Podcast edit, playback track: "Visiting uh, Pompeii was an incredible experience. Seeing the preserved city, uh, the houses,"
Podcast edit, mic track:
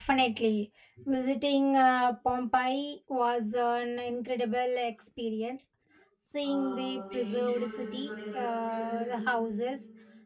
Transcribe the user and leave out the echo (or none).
uh, making sure the historical accuracy,